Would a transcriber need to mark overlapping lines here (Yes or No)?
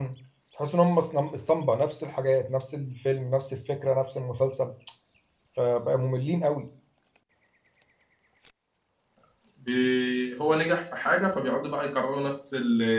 No